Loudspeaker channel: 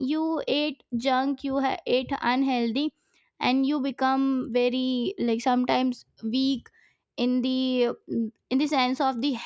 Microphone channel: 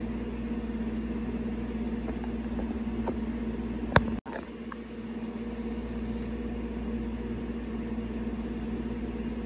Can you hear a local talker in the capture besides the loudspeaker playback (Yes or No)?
No